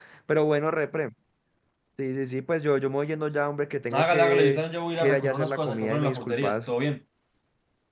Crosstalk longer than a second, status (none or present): present